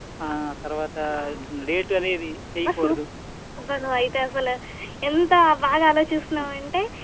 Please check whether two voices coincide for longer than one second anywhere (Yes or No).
No